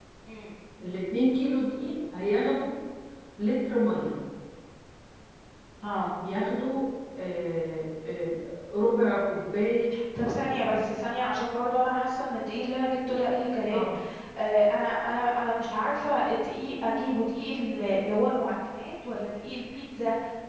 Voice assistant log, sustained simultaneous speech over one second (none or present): none